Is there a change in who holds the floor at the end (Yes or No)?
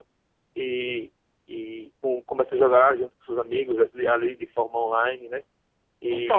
Yes